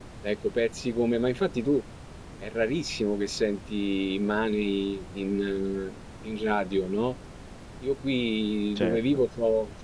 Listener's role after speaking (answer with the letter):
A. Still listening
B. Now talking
A